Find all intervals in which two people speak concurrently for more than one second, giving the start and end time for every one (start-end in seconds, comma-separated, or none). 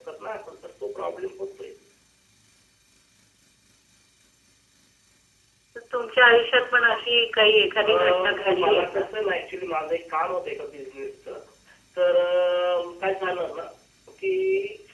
7.8-9.1